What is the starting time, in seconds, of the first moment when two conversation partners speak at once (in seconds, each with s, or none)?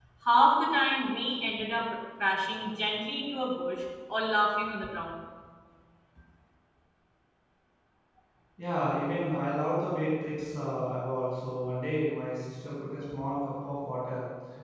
none